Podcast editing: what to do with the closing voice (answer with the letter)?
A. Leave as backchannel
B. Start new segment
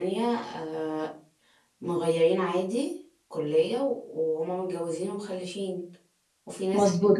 B